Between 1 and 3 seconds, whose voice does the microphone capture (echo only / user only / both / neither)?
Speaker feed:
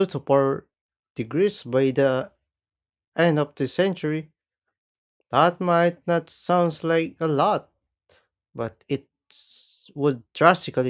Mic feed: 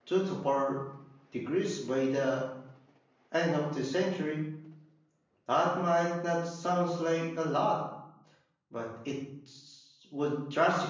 echo only